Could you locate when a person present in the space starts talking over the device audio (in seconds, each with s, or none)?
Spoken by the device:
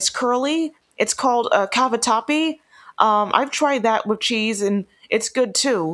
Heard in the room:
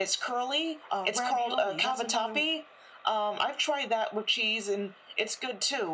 0.9 s